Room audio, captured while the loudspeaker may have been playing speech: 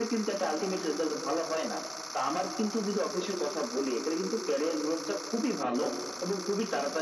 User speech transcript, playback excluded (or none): none